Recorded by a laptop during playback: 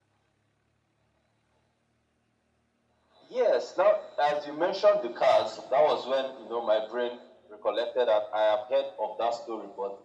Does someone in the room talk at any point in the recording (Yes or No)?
No